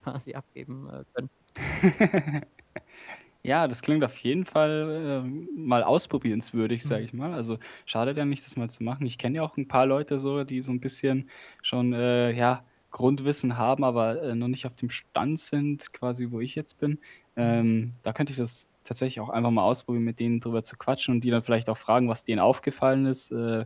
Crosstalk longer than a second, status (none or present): none